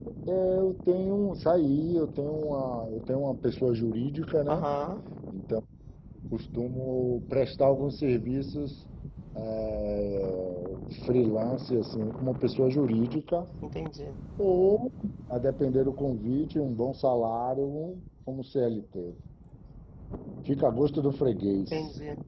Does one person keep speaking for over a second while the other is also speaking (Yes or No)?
No